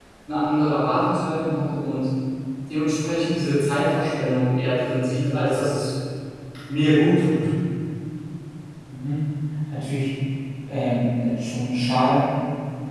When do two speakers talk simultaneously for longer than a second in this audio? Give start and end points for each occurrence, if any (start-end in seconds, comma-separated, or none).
none